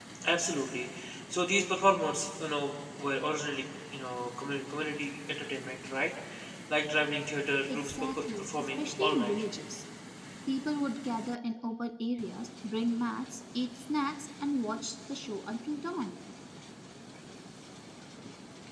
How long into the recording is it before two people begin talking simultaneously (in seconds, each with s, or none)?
7.7 s